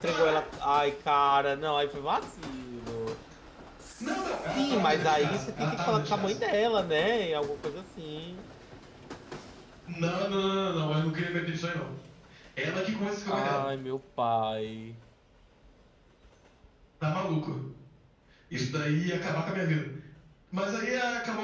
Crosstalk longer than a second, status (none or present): present